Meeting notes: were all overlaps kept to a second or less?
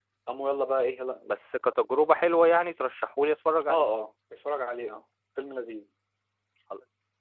Yes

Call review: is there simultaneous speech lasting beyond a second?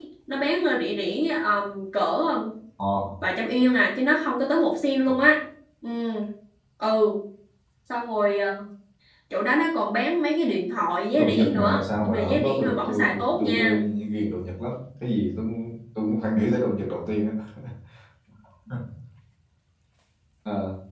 Yes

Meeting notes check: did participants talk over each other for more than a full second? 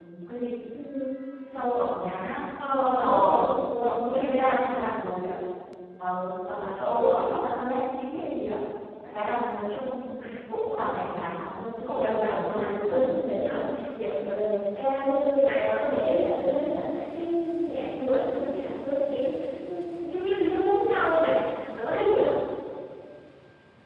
Yes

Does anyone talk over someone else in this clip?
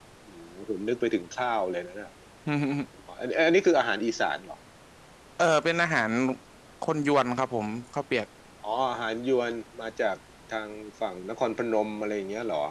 No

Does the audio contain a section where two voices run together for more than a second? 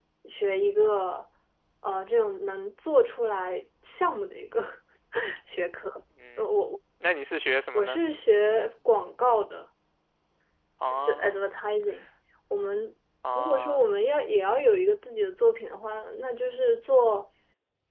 No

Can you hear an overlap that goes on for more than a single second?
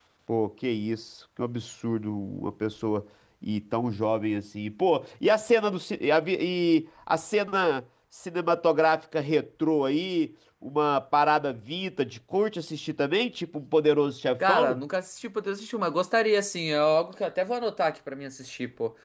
No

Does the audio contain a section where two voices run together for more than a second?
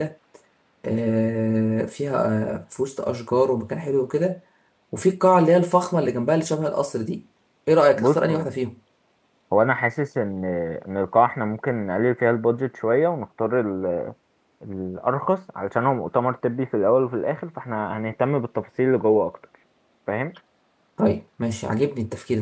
No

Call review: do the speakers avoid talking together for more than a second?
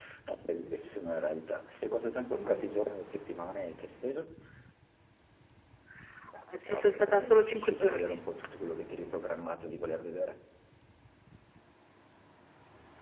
No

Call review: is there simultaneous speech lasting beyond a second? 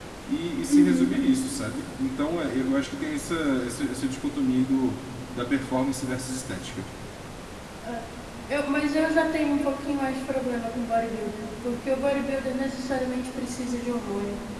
No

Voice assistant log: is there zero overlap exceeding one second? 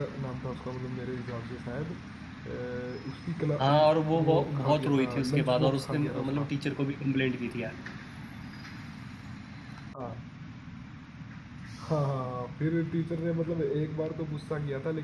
No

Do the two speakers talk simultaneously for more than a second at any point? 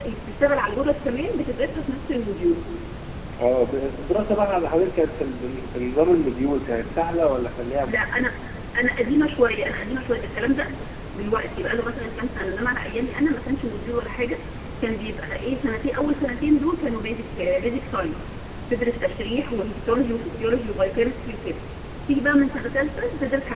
No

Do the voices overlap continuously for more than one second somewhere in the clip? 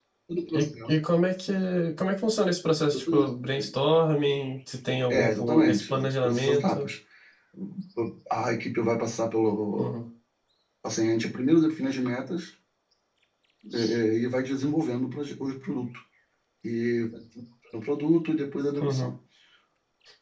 Yes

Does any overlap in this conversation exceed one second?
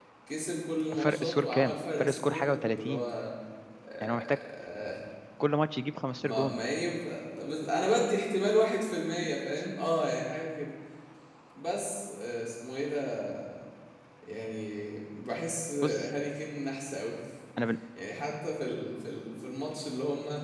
Yes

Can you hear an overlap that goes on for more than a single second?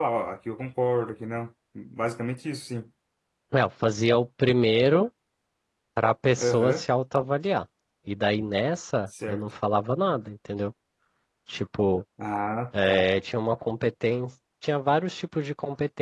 No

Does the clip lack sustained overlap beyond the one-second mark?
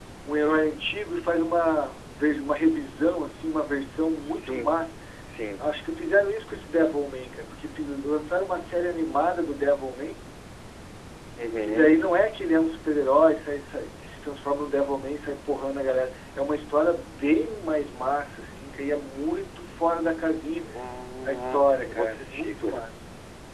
No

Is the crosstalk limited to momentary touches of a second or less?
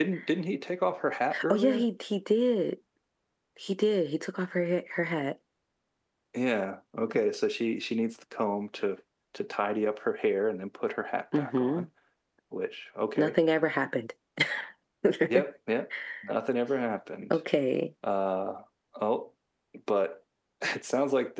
Yes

